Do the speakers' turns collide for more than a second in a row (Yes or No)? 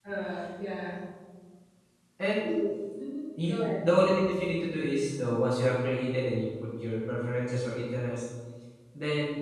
No